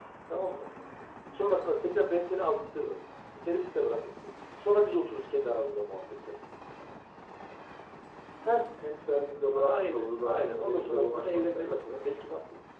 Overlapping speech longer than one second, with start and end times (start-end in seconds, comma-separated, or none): 9.5-12.0